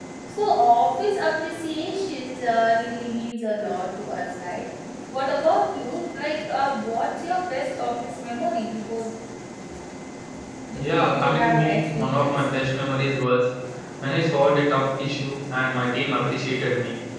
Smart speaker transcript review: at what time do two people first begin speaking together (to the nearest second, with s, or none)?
11 s